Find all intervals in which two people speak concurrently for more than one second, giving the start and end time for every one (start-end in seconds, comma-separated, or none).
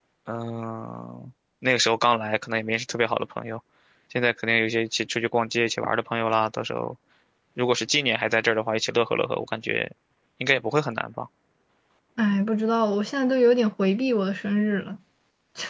none